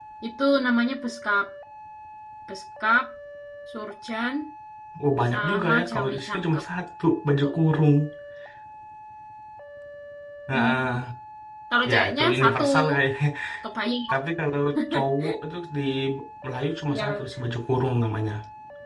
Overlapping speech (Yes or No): Yes